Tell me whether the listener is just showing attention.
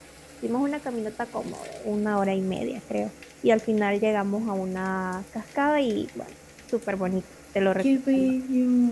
No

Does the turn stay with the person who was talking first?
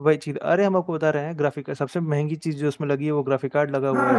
No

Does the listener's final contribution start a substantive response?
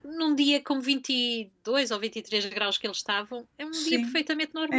Yes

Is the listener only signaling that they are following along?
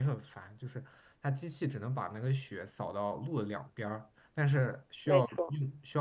Yes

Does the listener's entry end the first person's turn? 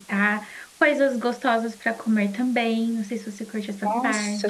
Yes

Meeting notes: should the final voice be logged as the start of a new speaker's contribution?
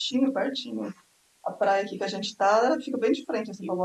Yes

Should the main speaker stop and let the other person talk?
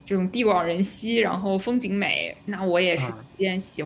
No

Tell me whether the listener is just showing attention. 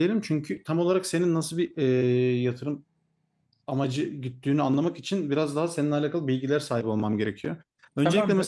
Yes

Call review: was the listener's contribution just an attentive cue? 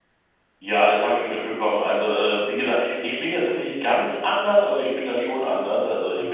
Yes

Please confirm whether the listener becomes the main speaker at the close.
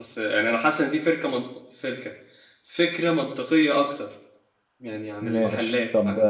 Yes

